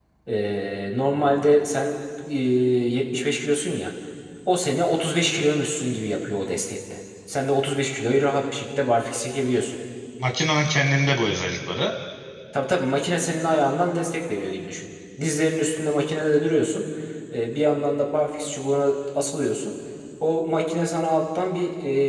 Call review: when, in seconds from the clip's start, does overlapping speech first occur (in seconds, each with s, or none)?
none